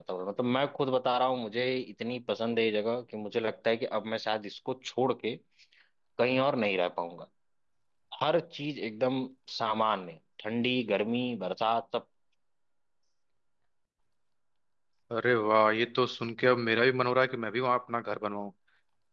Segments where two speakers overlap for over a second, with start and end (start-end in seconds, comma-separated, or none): none